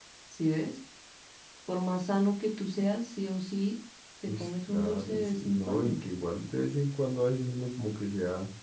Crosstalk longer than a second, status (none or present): present